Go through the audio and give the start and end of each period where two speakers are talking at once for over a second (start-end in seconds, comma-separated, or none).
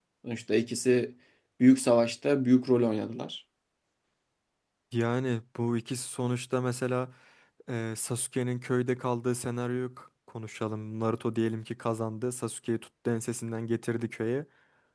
none